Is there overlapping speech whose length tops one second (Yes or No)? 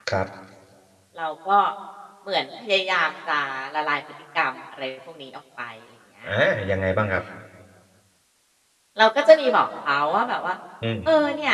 No